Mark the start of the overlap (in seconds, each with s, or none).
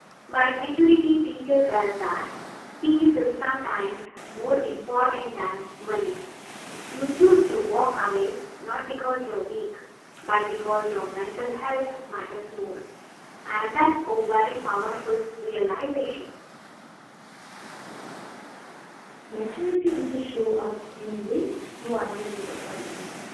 none